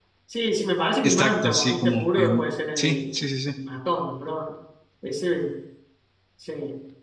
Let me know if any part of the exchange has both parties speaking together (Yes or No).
Yes